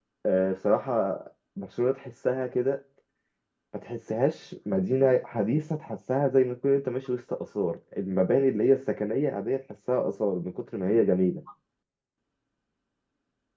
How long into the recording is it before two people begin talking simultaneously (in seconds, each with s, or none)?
none